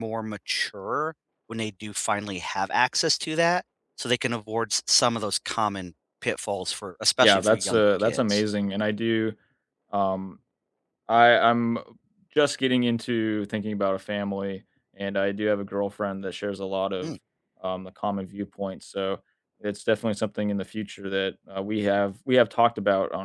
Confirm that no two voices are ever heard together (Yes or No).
No